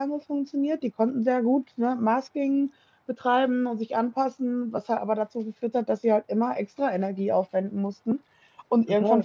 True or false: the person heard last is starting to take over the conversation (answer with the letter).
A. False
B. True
A